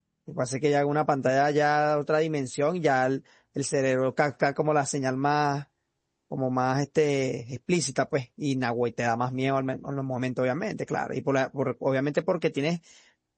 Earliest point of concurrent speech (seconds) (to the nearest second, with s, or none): none